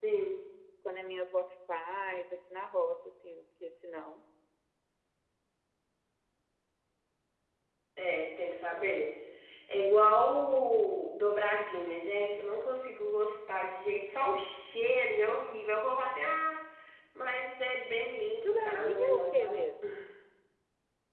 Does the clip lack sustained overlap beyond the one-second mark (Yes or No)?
No